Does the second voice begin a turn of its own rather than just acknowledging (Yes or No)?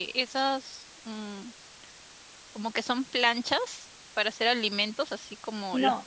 Yes